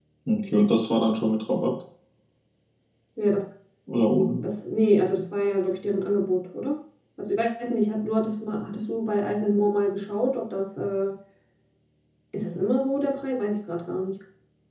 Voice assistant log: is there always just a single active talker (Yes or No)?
Yes